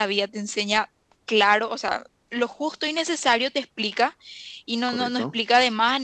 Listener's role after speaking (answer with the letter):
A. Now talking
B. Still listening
B